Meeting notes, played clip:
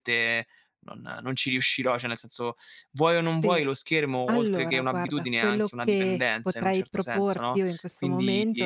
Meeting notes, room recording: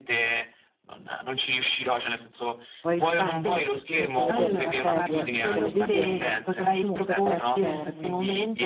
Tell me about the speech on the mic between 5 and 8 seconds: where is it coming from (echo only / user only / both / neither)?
both